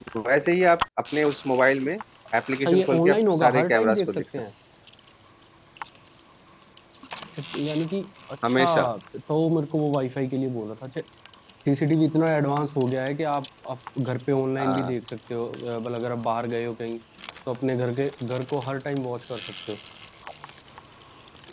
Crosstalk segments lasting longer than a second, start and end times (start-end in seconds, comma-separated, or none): 2.5-4.4